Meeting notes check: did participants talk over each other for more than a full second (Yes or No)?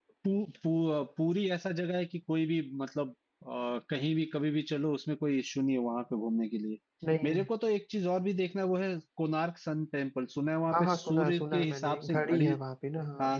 Yes